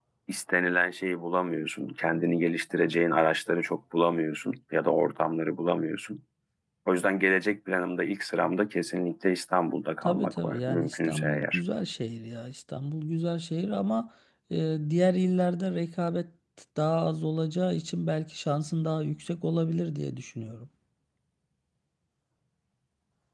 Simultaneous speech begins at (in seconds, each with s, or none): 10.0 s